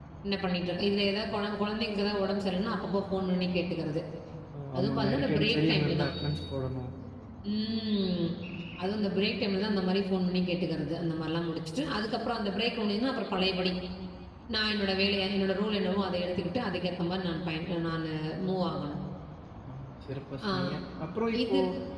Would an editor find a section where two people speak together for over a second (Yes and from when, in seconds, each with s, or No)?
Yes, from 4.8 s